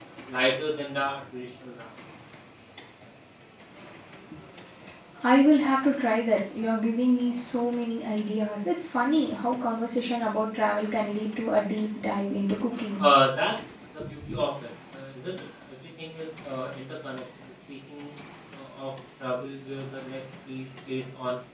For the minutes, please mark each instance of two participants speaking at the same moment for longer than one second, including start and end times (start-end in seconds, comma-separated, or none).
none